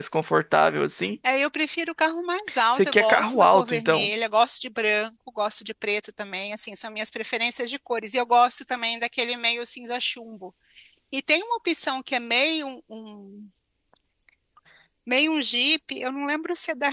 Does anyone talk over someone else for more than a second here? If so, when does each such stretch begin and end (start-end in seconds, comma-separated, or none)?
2.8-4.1